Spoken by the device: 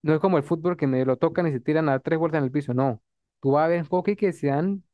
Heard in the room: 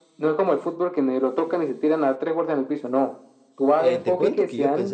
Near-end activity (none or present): present